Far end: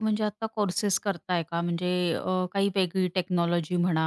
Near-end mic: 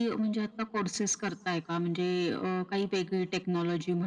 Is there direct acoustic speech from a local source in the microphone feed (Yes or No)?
No